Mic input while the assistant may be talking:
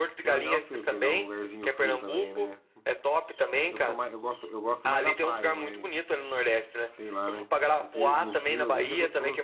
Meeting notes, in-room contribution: present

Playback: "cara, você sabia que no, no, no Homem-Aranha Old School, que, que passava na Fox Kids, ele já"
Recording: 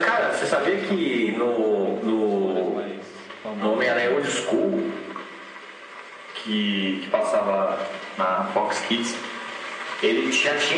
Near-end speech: present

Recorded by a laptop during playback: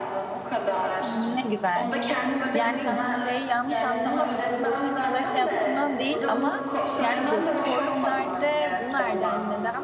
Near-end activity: present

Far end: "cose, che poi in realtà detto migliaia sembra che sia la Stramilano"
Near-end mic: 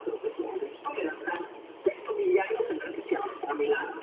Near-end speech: none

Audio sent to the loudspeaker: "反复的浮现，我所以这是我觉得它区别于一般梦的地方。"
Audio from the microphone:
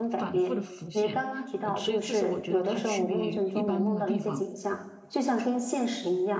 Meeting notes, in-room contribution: present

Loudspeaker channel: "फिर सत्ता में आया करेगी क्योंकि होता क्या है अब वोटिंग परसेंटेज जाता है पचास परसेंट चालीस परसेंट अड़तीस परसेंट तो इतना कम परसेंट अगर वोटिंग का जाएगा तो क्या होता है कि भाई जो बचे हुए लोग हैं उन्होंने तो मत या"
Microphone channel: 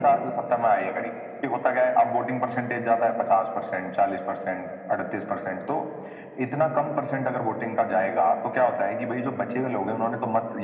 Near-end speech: none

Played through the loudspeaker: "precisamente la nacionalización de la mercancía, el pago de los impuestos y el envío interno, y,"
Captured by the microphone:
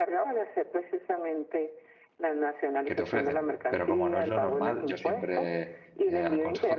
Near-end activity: present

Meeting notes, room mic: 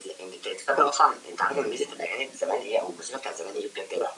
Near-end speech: present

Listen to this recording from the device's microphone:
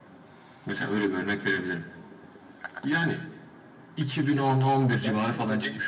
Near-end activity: present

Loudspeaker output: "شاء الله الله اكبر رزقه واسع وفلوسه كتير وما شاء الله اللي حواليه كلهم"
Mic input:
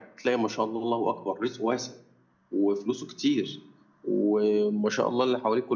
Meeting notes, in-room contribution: none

